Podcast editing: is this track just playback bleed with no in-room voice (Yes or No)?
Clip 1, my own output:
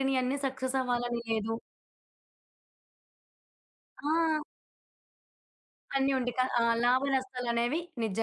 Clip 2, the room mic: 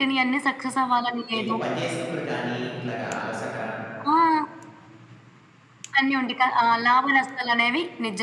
No